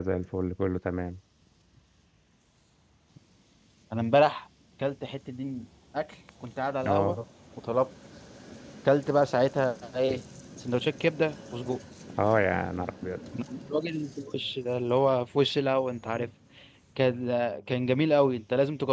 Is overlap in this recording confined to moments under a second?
Yes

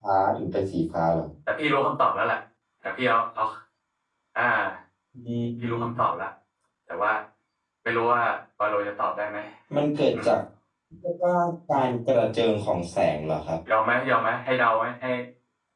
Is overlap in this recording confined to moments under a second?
Yes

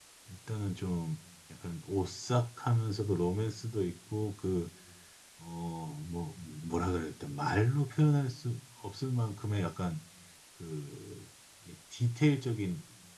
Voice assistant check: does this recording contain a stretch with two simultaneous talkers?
No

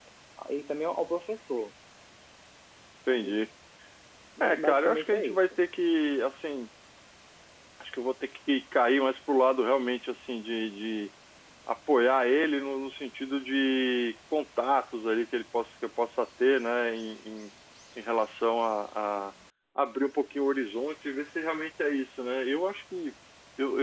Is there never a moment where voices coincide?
No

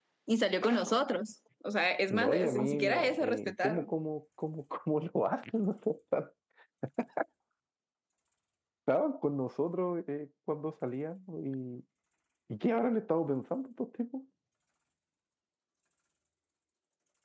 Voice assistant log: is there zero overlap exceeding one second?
No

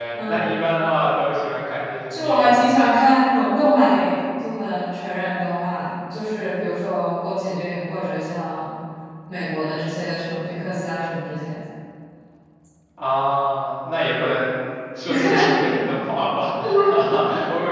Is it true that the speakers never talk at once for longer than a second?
Yes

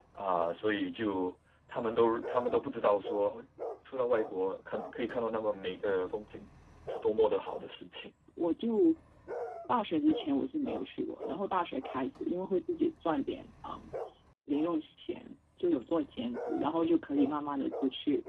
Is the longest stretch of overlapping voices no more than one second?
Yes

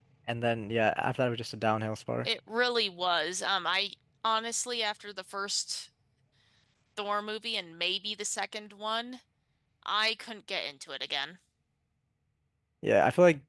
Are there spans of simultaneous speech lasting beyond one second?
No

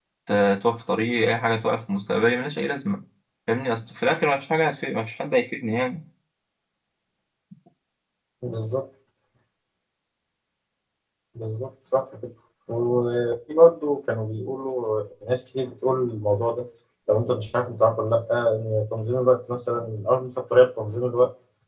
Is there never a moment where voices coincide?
Yes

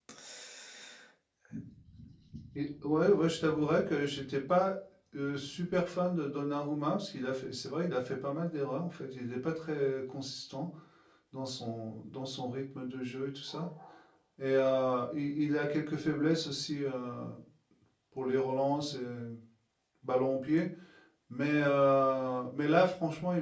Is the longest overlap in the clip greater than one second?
No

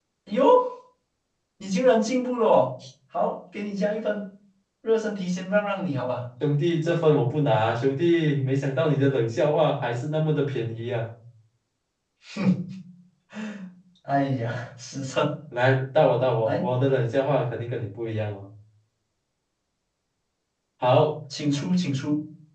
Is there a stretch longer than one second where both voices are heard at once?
No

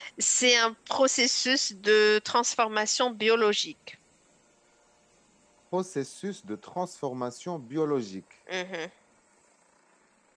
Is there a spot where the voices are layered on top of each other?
No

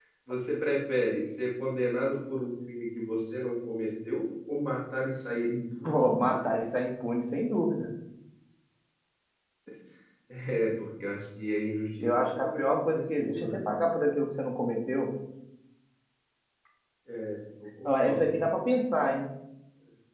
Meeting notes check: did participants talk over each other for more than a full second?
Yes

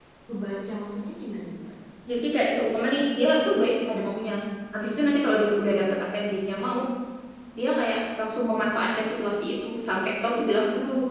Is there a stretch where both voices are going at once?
No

